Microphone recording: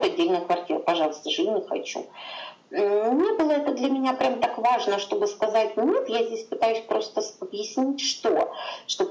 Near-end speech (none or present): none